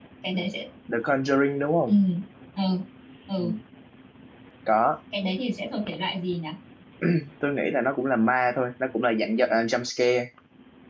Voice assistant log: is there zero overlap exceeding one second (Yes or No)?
Yes